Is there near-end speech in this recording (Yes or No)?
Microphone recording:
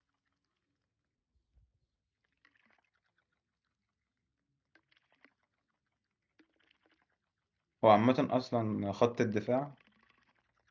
Yes